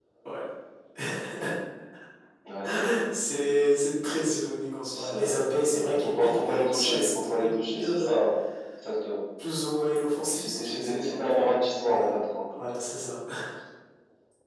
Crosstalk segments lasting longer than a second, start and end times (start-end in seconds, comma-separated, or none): 4.9-8.1, 10.2-11.5